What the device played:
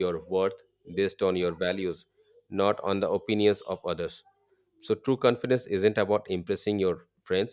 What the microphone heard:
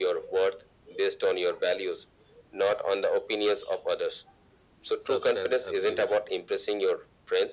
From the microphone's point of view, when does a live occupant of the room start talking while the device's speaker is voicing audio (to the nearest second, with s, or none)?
5 s